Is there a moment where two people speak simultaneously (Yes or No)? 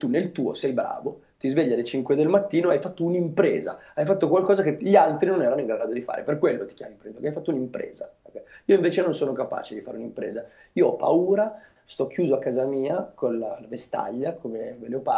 No